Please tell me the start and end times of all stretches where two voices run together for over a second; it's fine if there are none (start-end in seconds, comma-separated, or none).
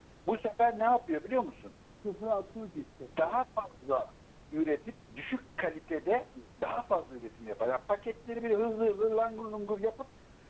none